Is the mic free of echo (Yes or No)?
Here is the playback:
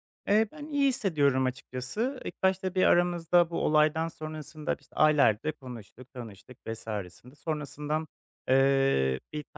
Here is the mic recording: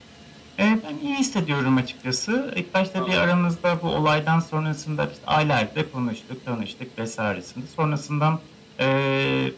No